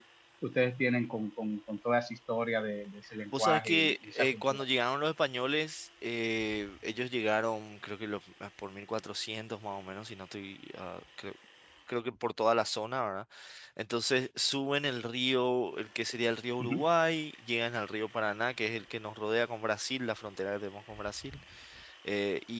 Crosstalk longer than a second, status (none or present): present